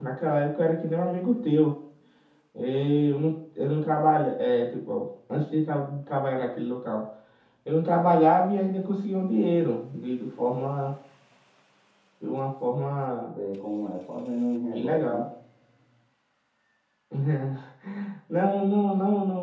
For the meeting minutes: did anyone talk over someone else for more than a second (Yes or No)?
No